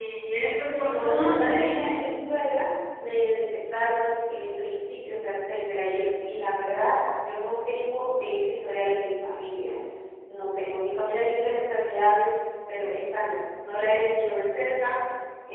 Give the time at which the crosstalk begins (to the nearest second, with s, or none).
1 s